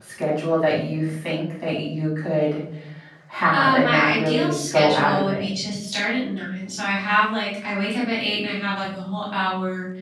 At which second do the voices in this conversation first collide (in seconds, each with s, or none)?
3.5 s